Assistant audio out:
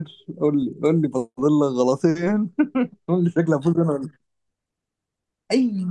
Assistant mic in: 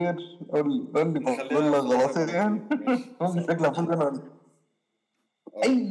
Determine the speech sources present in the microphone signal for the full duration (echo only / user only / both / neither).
both